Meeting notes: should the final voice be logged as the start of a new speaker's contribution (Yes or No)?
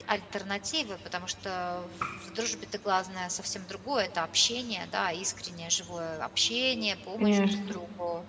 No